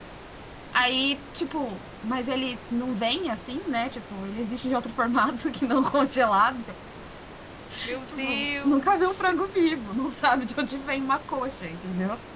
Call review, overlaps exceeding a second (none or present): present